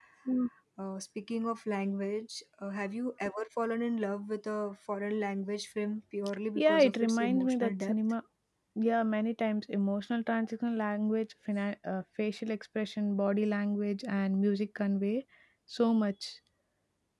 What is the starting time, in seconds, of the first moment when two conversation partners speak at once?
6.5 s

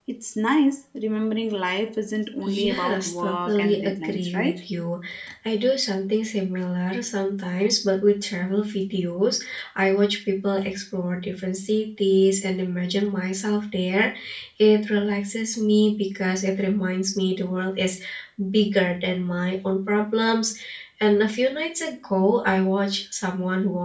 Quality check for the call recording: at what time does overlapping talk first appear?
2.5 s

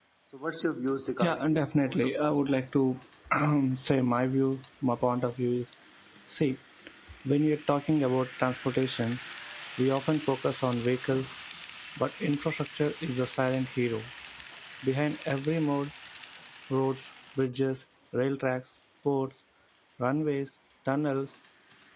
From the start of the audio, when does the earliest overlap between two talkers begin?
1.2 s

